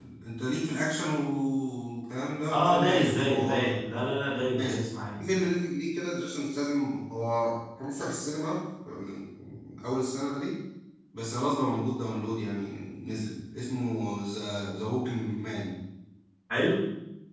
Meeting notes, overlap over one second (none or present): present